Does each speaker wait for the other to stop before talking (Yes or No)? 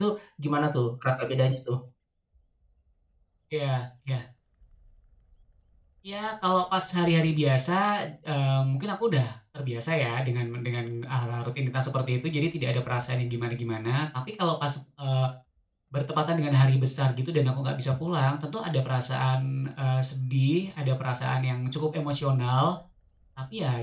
Yes